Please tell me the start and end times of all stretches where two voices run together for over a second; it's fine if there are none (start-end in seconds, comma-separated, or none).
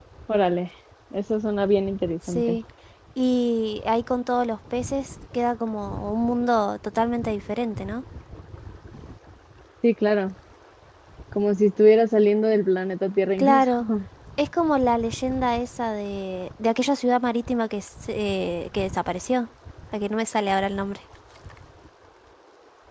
none